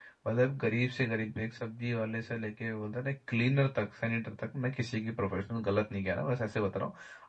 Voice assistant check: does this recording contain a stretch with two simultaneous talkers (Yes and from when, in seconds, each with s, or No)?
No